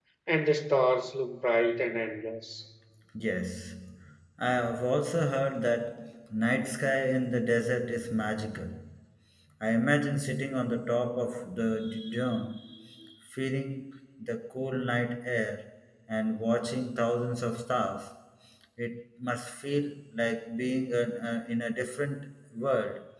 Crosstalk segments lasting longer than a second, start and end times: none

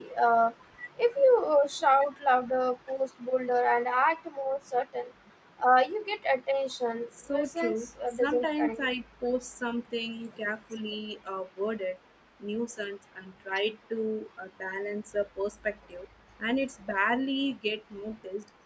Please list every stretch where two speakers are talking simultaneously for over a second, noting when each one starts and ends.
7.3-8.9

